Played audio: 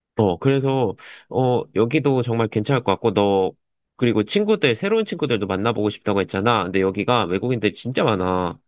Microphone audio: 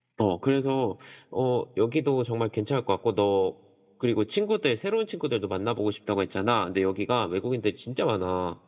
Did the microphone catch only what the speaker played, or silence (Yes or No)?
Yes